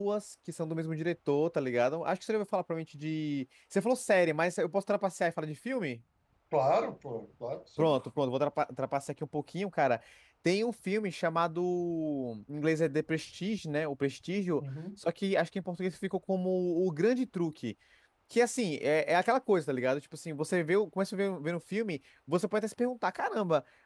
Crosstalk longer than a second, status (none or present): none